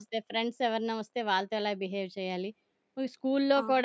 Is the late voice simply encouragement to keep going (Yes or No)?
Yes